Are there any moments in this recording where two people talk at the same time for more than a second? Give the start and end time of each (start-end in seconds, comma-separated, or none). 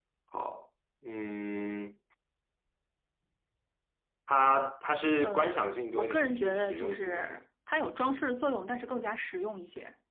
5.2-7.4